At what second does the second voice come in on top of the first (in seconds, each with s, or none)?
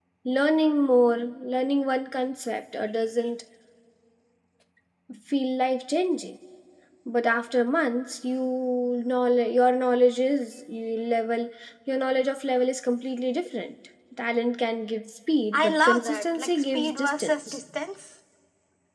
15.5 s